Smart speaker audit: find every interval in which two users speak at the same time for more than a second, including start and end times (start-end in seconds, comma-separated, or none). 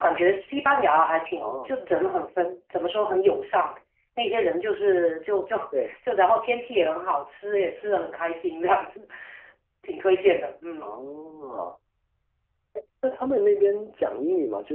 none